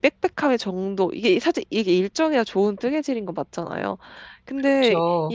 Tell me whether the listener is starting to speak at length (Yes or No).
No